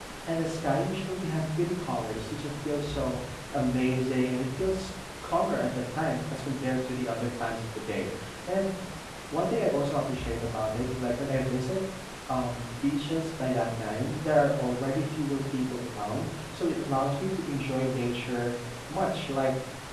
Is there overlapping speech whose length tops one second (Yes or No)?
No